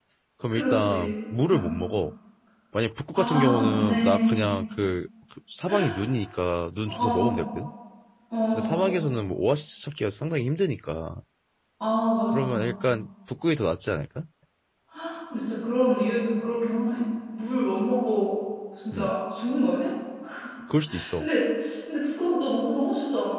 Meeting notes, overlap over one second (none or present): present